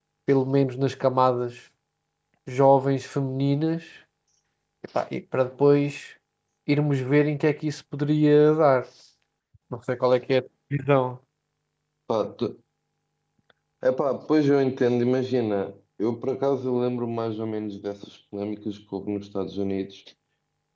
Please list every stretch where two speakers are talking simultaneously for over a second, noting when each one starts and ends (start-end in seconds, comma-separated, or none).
none